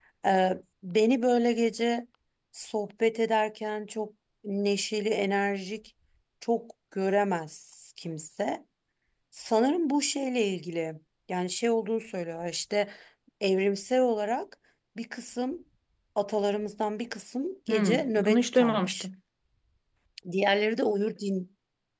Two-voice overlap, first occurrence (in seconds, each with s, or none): 17.7 s